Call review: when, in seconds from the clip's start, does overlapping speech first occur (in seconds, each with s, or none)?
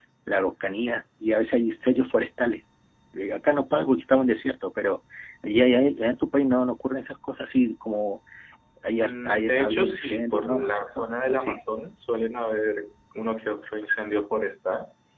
9.0 s